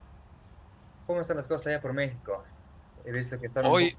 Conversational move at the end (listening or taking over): listening